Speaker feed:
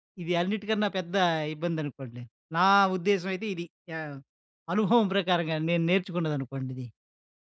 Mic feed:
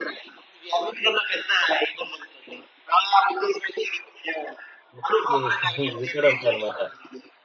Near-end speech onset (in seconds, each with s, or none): 5.0 s